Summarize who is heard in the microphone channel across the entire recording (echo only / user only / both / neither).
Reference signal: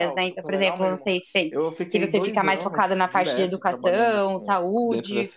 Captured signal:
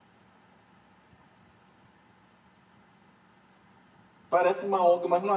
user only